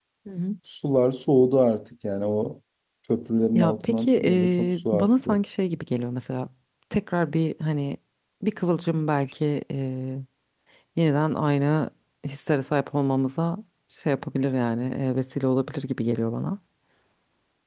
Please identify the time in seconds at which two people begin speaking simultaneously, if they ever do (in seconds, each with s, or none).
3.5 s